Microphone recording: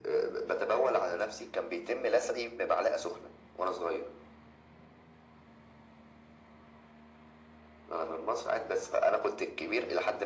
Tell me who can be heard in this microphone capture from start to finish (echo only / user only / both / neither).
echo only